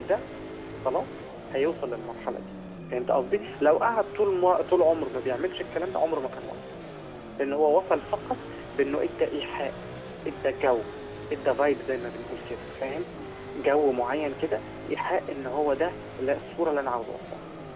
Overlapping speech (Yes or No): No